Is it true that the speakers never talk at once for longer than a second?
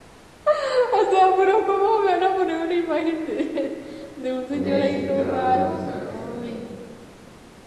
No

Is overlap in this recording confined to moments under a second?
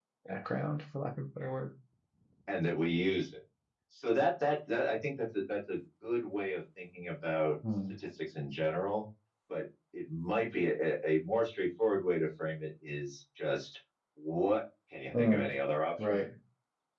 Yes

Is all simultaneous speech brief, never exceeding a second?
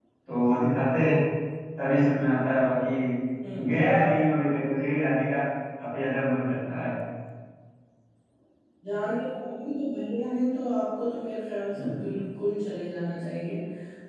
Yes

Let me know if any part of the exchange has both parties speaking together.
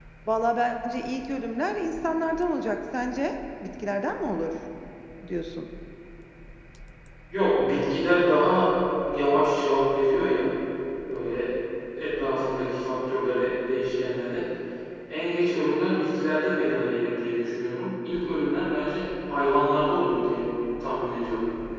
No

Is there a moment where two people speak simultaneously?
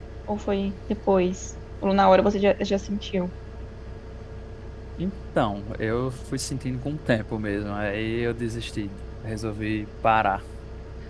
No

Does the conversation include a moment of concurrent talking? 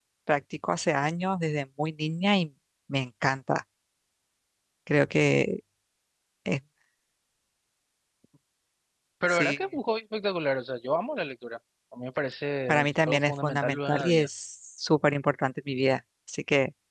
Yes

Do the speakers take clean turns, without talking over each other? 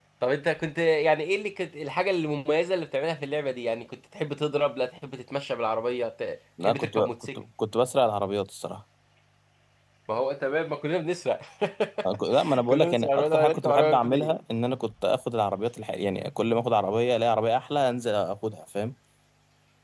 No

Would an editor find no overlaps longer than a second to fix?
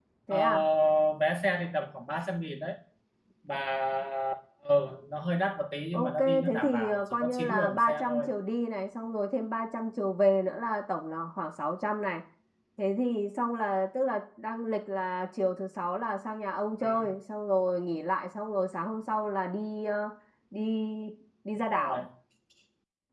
No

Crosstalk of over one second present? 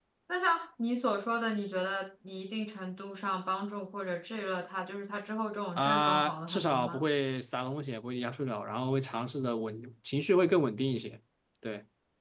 Yes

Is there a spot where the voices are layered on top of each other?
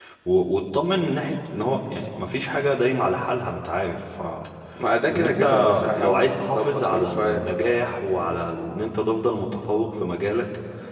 Yes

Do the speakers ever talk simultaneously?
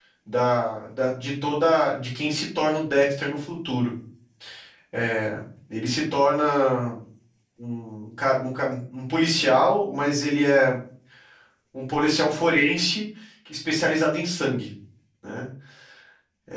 No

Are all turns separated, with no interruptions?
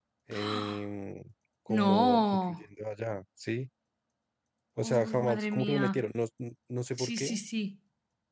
No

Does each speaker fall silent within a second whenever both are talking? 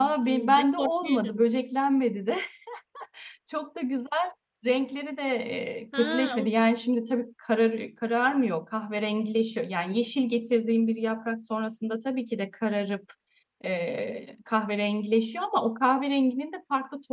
No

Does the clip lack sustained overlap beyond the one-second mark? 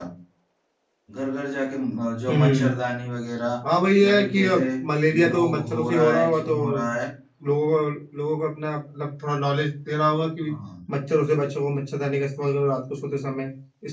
No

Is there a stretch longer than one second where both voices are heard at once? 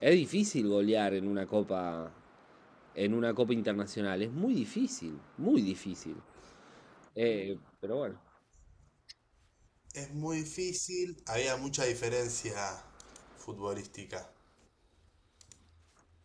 No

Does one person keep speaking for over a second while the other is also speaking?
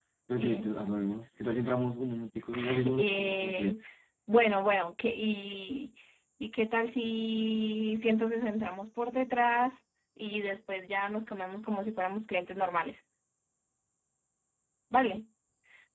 Yes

